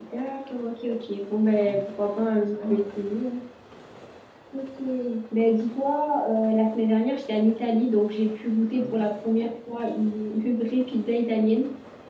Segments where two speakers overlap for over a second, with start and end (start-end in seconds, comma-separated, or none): 1.5-2.8